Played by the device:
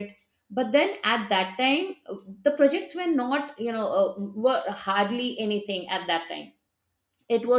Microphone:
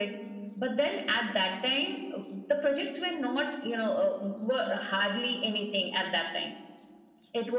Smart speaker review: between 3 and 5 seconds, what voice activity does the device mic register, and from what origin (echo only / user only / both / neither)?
echo only